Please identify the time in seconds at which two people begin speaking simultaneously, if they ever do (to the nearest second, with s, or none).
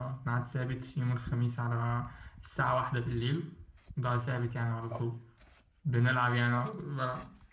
none